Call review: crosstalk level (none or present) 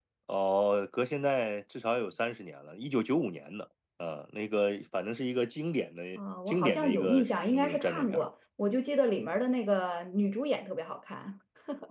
present